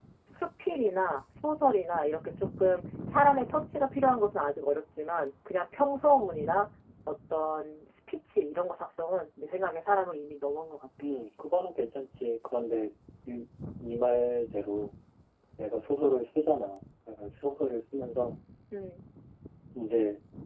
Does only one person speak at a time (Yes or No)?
Yes